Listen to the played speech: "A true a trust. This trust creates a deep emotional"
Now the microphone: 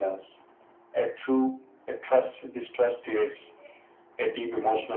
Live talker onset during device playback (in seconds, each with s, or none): none